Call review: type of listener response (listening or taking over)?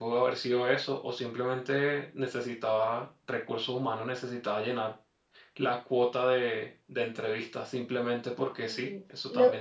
taking over